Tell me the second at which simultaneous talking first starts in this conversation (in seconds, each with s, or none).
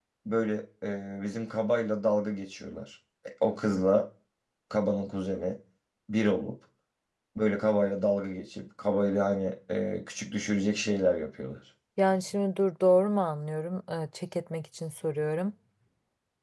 none